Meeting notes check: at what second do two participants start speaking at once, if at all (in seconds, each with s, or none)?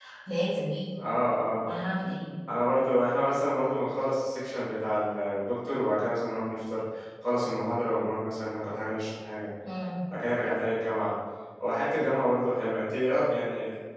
none